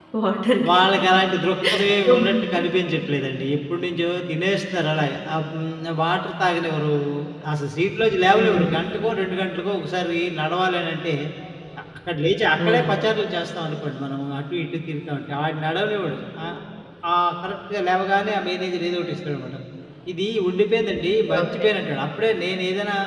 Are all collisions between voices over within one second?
Yes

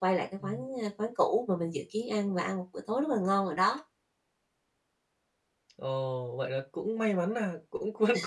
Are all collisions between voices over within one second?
Yes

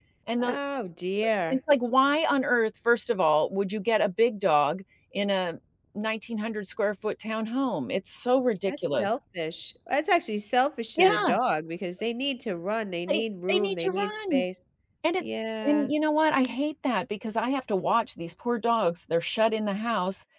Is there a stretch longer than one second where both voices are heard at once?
Yes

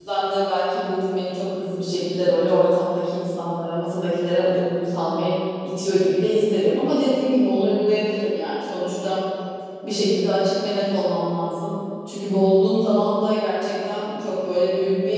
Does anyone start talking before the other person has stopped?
No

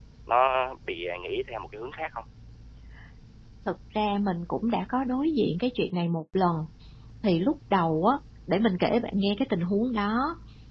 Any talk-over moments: No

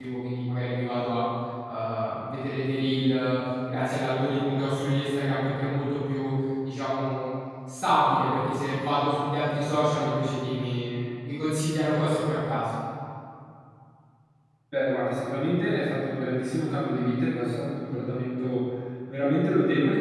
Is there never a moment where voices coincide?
Yes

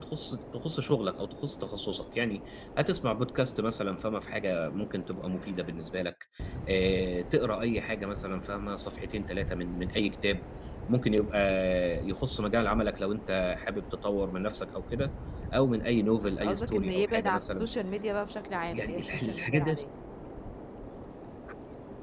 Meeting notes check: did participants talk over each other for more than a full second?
Yes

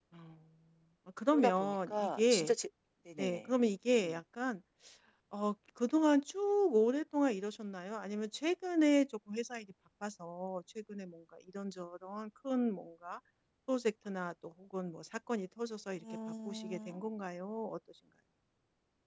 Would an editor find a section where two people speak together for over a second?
Yes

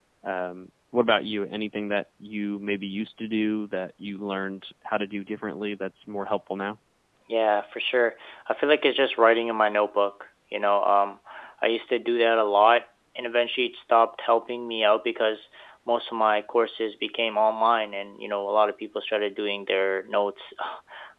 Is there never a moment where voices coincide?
Yes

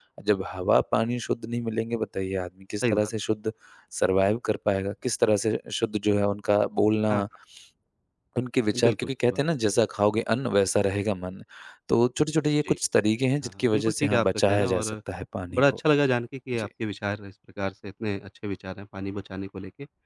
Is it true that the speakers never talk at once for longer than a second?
No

